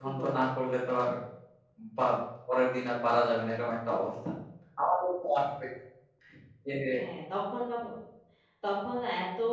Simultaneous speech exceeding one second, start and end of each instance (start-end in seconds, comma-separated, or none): none